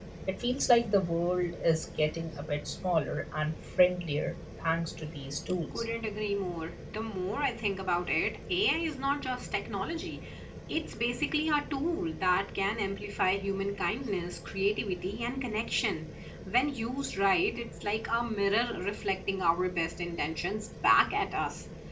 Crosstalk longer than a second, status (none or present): none